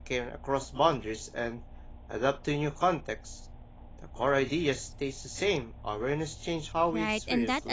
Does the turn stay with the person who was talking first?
No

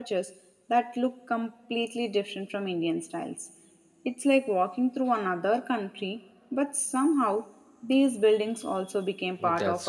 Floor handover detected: Yes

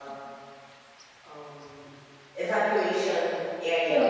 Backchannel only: Yes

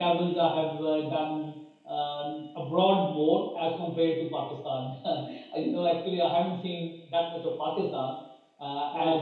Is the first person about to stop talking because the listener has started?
No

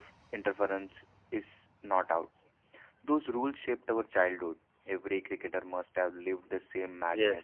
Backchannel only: No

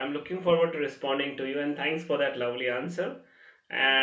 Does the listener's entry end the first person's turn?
No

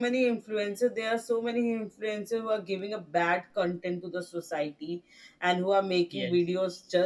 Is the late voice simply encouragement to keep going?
Yes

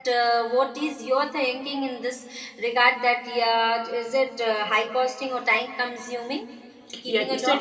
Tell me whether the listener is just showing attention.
No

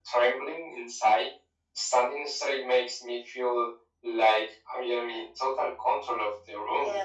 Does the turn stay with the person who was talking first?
No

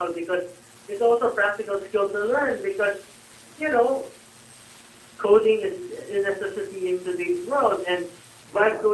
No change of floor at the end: Yes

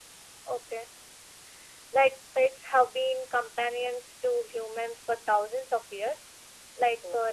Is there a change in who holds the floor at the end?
No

